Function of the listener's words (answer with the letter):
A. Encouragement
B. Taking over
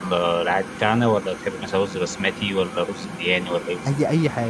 B